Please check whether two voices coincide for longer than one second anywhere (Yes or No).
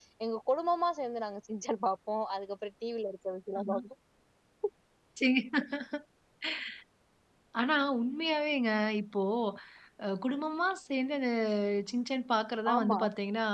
No